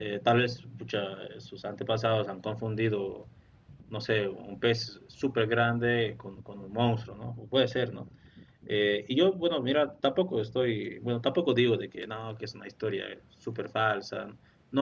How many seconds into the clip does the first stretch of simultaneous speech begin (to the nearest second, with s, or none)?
none